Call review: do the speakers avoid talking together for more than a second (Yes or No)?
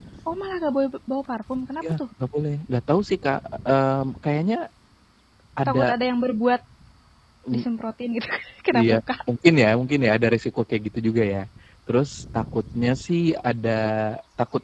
Yes